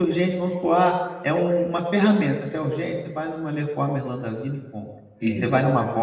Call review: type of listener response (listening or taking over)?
listening